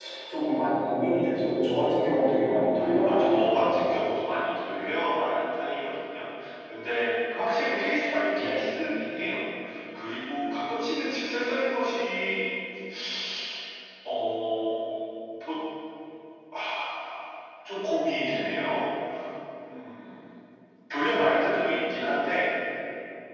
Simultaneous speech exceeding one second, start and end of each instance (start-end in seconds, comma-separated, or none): 2.4-3.8